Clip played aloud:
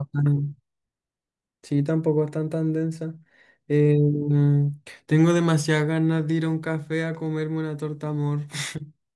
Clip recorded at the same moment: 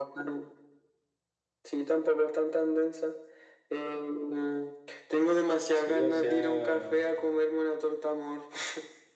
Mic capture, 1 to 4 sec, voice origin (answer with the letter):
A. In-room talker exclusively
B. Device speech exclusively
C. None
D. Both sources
B